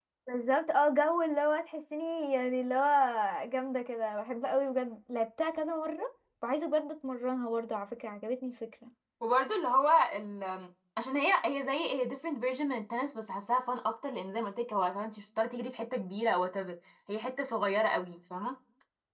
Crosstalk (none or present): none